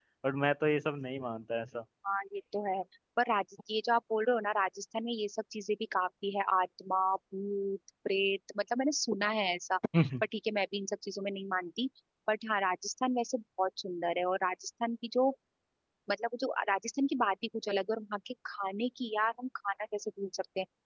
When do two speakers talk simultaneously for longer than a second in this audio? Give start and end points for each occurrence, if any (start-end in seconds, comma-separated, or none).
none